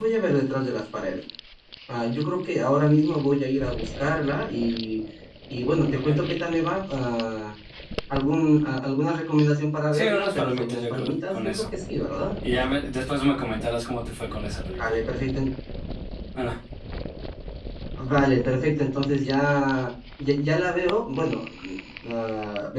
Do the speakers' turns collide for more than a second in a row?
Yes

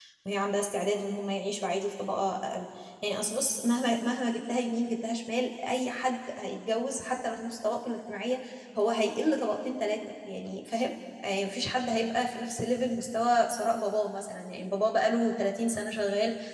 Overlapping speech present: No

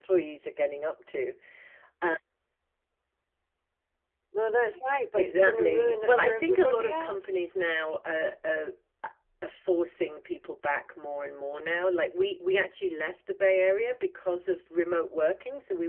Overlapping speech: Yes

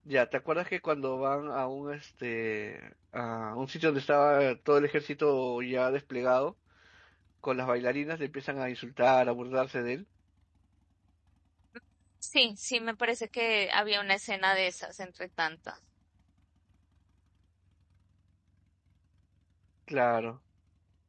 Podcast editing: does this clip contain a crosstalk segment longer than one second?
No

